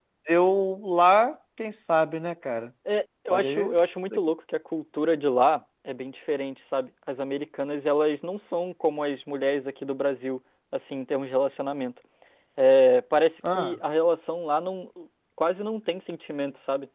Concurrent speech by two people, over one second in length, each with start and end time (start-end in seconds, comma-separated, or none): none